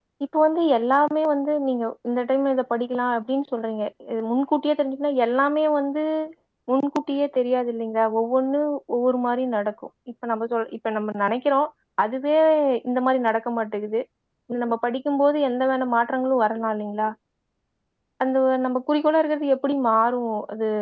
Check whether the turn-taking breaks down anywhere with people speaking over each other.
No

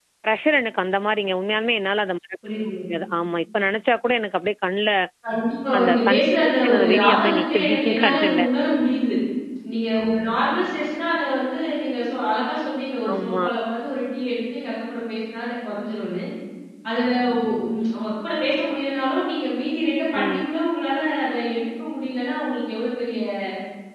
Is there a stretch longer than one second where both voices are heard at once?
Yes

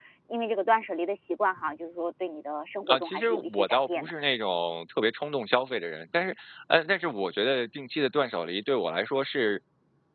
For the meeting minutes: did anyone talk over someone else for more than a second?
Yes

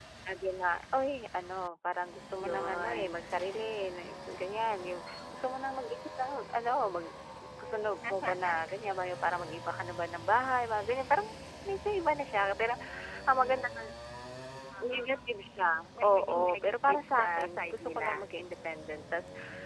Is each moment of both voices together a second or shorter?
No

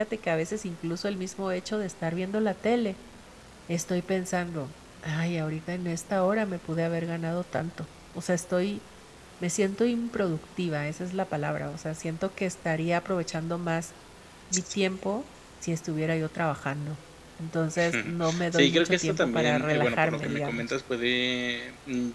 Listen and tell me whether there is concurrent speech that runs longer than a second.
Yes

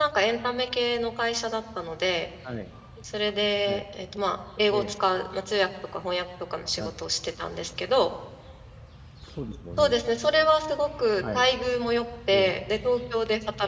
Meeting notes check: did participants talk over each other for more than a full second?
No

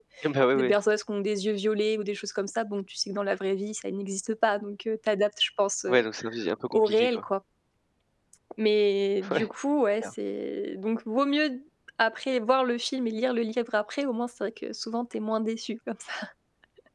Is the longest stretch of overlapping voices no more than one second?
Yes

